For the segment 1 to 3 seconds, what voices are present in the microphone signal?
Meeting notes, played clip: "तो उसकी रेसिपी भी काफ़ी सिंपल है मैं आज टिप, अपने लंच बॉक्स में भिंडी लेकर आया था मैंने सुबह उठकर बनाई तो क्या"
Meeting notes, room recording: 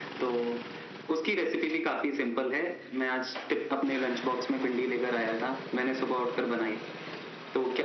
echo only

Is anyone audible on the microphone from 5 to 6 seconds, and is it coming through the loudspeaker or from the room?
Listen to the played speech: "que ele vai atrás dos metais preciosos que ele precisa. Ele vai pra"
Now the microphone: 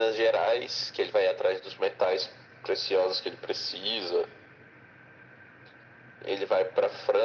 neither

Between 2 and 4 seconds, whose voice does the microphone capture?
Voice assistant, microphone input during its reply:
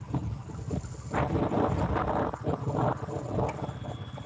neither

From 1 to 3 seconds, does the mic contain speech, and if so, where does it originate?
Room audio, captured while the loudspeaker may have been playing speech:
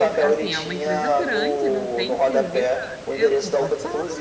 both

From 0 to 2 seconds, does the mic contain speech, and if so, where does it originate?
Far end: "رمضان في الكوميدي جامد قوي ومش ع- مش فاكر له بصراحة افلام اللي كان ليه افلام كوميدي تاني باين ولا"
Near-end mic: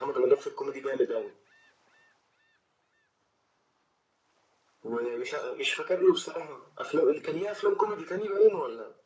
echo only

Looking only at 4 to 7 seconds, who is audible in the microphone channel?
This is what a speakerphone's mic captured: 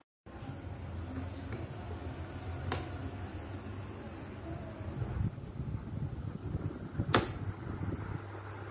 neither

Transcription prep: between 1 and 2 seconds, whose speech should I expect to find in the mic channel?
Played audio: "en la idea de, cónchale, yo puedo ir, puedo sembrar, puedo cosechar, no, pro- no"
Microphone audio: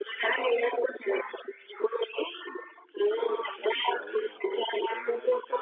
echo only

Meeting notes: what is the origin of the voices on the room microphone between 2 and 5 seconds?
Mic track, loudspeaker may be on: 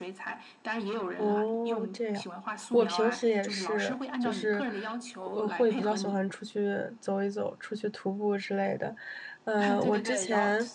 both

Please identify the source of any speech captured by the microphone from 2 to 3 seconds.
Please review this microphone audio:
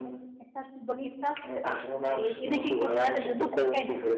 both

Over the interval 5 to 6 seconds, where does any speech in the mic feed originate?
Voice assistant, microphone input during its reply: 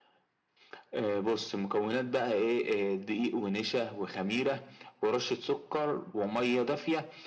echo only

